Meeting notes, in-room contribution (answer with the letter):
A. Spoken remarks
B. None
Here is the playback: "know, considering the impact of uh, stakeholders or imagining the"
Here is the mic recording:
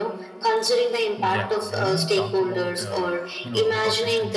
A